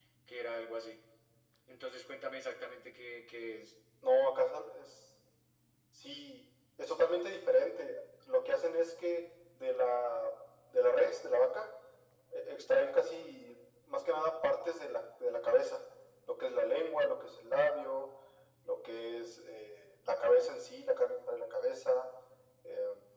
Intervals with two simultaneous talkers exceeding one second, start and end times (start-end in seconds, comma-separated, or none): none